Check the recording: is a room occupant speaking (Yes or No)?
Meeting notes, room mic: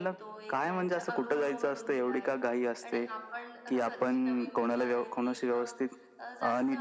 Yes